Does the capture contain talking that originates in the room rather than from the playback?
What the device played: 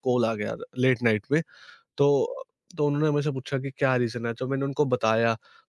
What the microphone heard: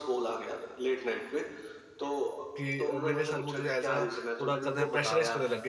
Yes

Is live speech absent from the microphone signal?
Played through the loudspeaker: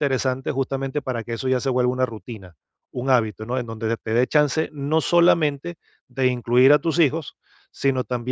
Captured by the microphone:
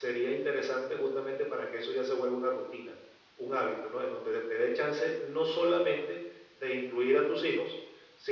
Yes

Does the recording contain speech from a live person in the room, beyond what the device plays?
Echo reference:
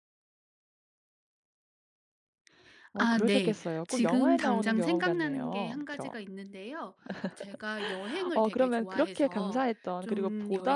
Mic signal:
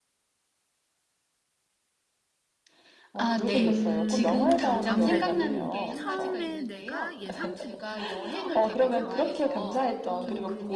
Yes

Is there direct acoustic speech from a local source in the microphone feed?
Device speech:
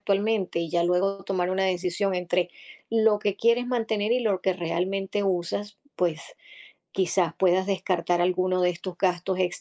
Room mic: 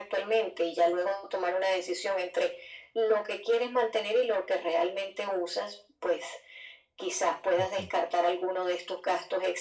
Yes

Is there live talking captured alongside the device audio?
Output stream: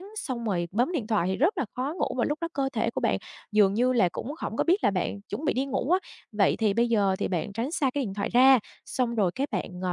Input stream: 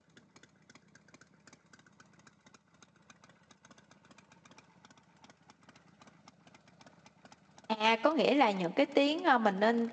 Yes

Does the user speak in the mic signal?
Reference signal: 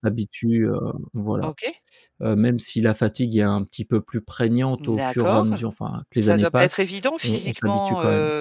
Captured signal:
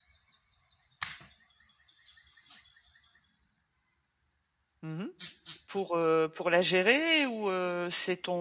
Yes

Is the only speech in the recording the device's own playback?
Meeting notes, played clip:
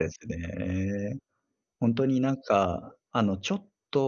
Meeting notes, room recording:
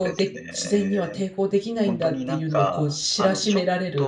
No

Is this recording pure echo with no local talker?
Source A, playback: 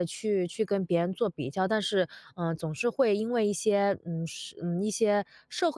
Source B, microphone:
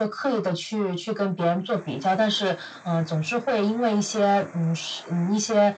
Yes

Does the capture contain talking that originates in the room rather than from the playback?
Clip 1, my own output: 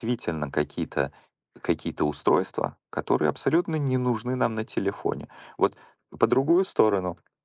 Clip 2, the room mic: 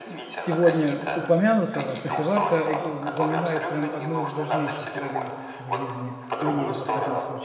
Yes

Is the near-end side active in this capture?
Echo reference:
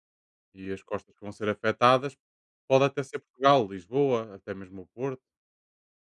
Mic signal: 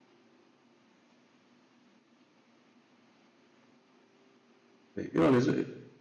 Yes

